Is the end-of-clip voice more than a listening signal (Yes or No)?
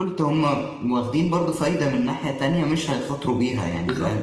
Yes